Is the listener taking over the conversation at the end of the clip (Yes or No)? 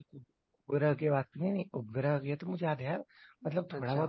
No